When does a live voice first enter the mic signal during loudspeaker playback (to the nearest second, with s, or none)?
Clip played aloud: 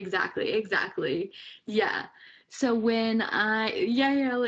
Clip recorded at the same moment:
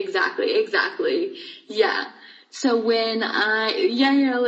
none